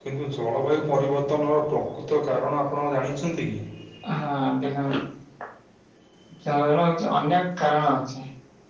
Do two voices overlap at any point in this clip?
No

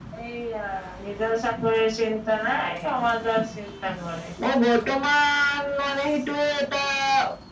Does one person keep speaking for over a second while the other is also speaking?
No

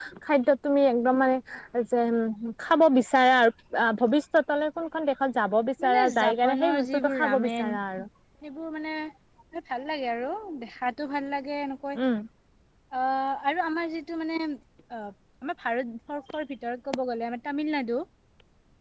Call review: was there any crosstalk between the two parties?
Yes, from 5.8 s

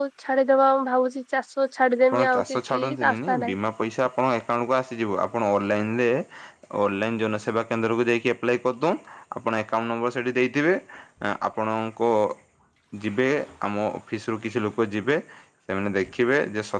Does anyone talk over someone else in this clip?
Yes, from 2.1 s

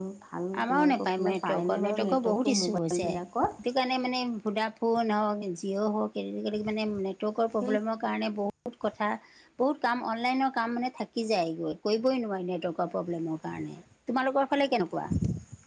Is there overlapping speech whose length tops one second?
Yes, from 0.6 s

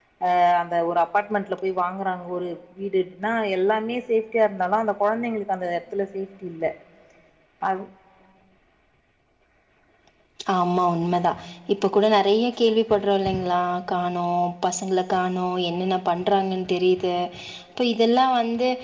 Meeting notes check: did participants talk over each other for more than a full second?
No

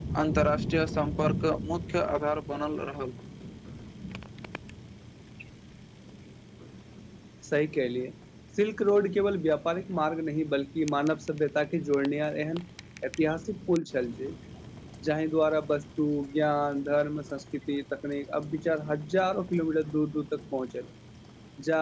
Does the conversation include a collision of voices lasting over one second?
No

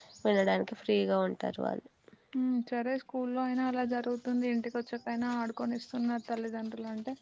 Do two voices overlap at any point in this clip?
No

